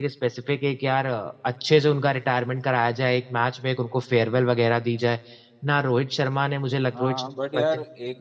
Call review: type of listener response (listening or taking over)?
taking over